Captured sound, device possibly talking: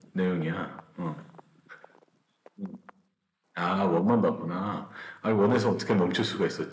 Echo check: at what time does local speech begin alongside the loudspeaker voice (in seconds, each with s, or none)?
none